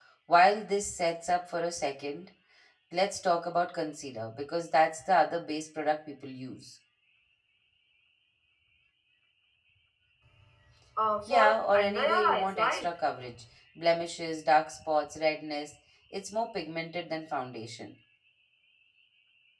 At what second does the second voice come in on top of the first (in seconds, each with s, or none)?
11.3 s